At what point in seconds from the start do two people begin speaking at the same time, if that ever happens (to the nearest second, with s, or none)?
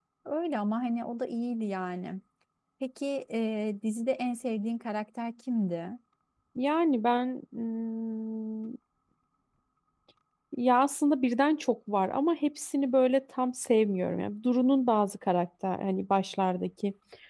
none